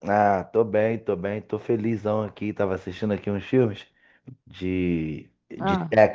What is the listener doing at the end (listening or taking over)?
listening